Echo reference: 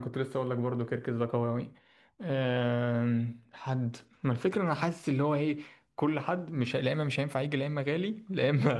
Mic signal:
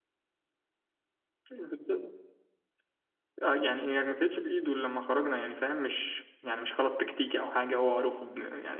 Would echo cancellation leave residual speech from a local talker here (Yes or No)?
Yes